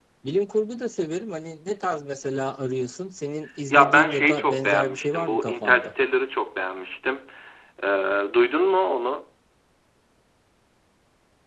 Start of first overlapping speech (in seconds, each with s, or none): 3.7 s